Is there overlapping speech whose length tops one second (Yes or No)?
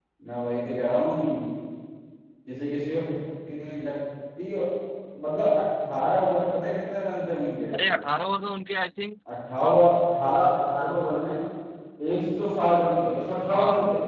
No